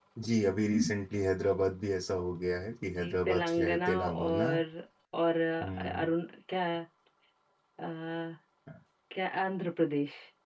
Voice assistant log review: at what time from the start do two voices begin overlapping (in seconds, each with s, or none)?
3.0 s